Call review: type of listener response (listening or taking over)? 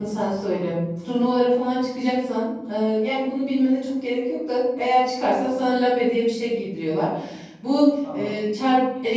listening